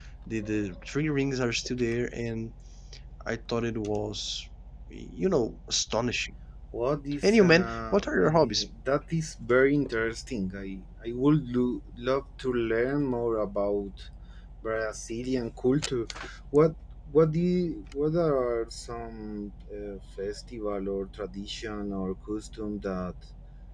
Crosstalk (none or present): present